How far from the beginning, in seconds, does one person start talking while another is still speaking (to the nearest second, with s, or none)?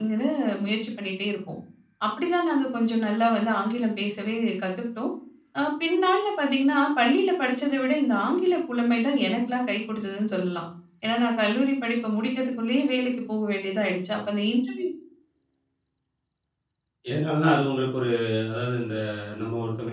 none